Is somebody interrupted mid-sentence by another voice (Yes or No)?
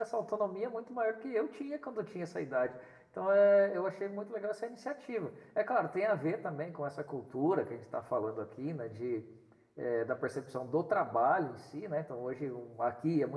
No